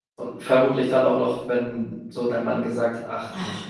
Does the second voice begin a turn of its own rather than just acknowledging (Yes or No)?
No